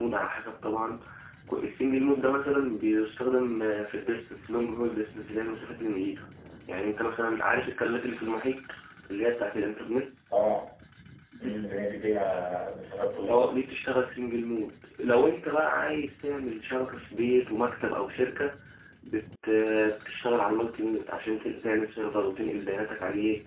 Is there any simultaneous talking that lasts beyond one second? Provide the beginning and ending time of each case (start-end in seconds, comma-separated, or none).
none